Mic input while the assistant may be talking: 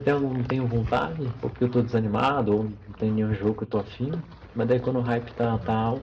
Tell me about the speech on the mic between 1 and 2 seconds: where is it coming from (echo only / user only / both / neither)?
user only